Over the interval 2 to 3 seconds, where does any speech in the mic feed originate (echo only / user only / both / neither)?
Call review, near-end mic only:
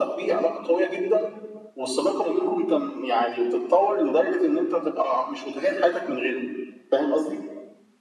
echo only